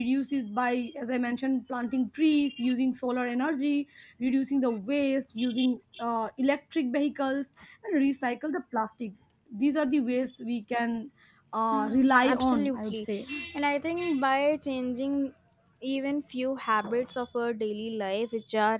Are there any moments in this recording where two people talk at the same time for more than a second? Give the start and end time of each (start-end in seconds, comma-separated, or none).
11.7-13.0